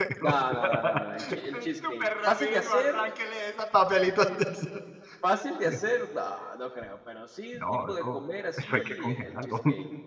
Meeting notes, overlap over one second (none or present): present